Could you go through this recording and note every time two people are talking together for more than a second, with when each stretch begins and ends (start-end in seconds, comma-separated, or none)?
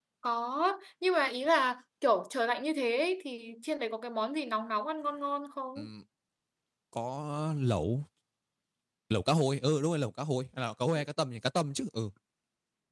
none